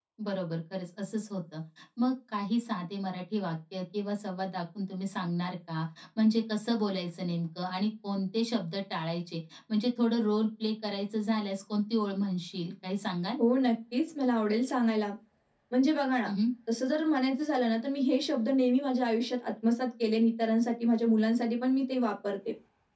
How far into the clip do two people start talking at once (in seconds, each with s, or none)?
none